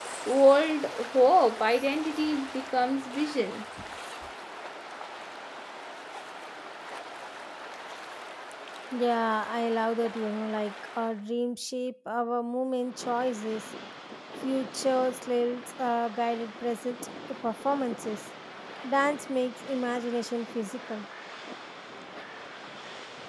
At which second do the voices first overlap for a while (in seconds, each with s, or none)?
none